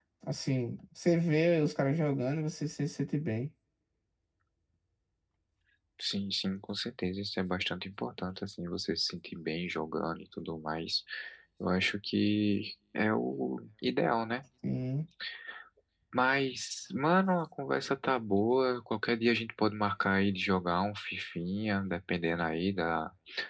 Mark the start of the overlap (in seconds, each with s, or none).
none